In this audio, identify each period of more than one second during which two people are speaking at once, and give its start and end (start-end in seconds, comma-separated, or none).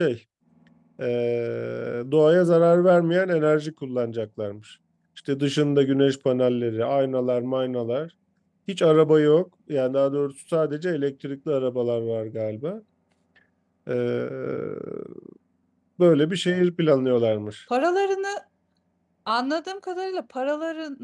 none